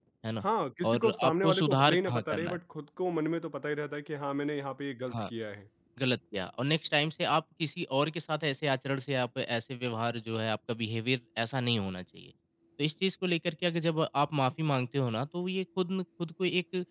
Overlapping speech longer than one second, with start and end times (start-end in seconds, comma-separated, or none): 0.8-2.6